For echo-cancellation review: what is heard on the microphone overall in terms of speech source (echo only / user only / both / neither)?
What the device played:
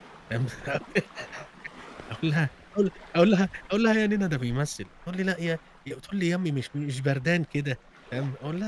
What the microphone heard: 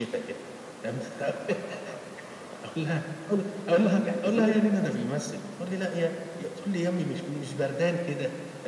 both